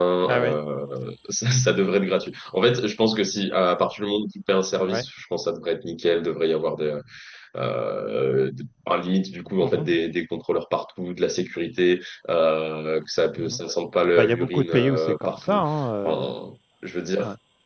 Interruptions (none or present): present